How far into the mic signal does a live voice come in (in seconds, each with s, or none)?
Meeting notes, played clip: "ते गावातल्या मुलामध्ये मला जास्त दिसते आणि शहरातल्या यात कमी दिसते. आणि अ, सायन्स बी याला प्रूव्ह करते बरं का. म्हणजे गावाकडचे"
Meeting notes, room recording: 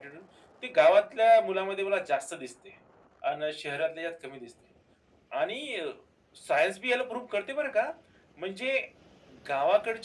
none